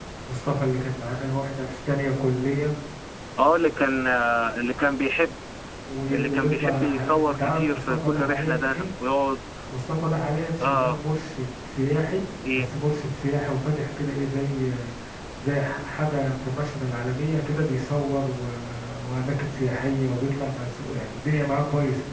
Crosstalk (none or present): present